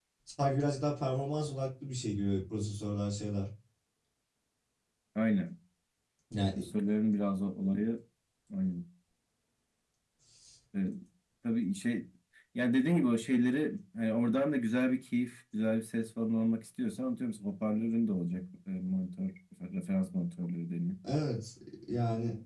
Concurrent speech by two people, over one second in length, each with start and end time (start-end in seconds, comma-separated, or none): none